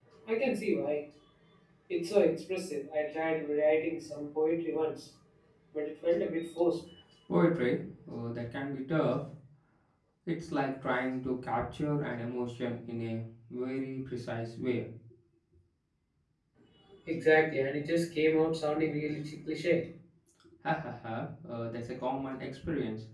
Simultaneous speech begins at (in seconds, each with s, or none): none